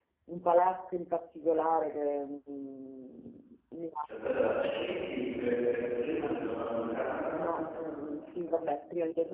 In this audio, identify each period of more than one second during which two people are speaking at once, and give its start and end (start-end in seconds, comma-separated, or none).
none